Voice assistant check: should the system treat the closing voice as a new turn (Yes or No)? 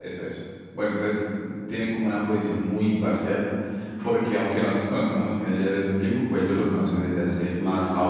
No